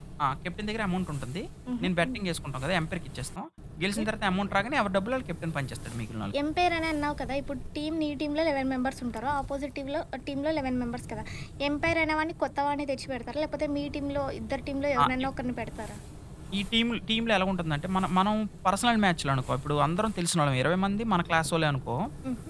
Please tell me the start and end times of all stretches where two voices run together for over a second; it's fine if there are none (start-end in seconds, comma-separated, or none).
none